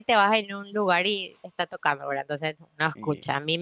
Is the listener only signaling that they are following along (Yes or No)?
Yes